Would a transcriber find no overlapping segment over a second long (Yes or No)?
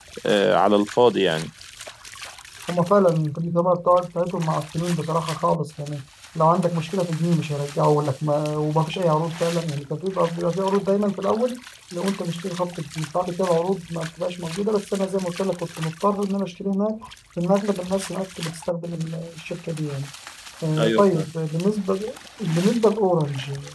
Yes